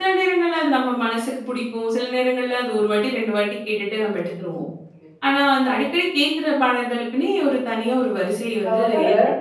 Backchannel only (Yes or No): No